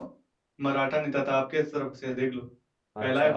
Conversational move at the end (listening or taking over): listening